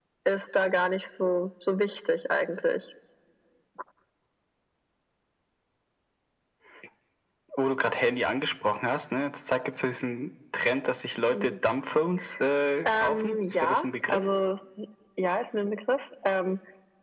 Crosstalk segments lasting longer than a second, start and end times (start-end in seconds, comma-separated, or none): 12.8-14.2